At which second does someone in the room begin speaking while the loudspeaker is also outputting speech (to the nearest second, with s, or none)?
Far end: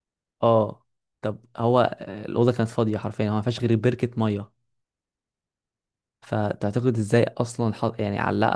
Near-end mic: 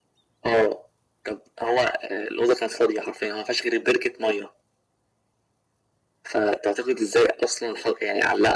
none